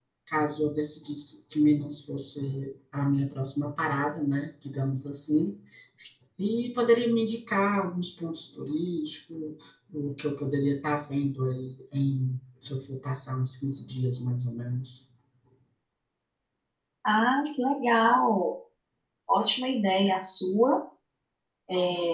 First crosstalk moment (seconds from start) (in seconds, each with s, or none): none